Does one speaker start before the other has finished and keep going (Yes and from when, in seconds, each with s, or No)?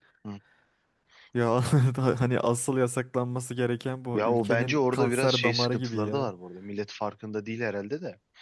Yes, from 4.1 s